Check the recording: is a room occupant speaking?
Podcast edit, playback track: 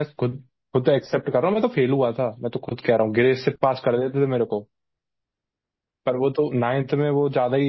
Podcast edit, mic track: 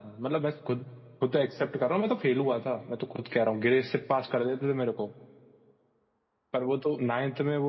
No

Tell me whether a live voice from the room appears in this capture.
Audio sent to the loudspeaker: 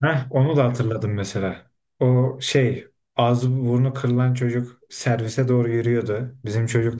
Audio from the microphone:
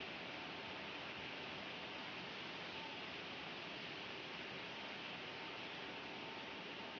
No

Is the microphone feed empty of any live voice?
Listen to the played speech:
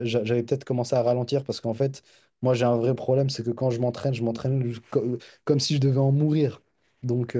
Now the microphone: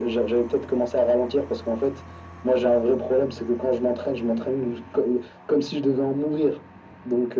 Yes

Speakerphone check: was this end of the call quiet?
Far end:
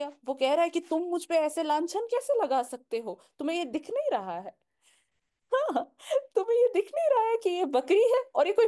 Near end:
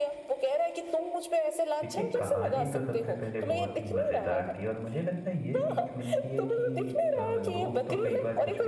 No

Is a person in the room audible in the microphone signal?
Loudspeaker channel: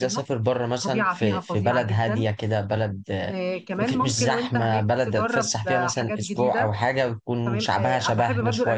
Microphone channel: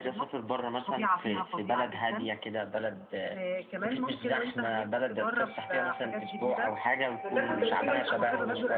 Yes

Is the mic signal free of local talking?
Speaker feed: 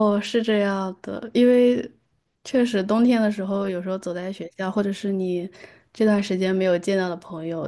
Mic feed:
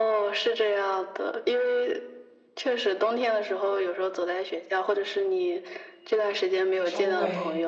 No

